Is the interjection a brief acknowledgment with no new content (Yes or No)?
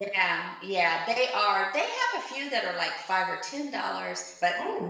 Yes